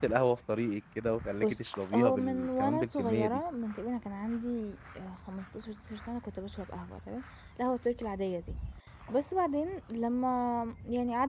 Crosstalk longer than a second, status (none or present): present